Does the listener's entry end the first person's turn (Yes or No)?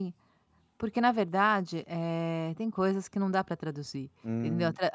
Yes